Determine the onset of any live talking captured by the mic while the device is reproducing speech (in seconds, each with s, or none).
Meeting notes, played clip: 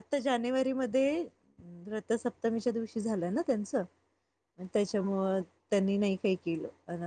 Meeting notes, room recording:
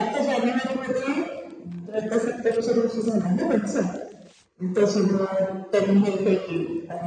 none